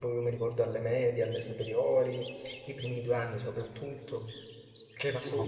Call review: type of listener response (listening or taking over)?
listening